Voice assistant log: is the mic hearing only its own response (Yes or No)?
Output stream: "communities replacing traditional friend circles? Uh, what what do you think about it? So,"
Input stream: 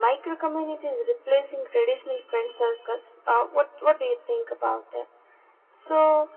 Yes